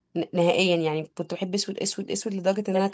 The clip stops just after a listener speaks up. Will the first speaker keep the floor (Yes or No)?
No